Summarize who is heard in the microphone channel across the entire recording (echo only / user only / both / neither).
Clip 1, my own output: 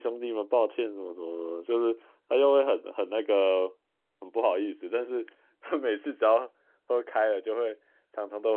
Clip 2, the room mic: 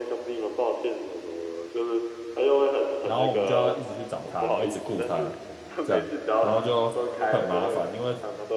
both